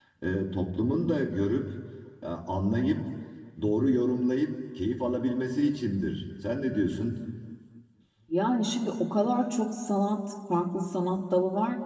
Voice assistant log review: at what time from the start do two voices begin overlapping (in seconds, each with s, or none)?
none